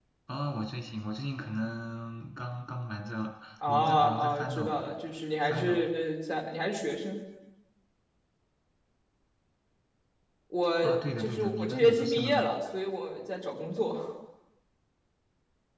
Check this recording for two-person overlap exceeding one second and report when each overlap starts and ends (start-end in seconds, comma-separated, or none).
3.7-4.9, 10.8-12.5